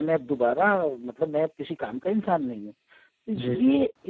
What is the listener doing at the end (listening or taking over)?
listening